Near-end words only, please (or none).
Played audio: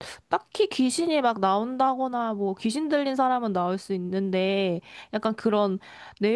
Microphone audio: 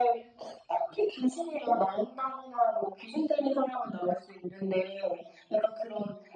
none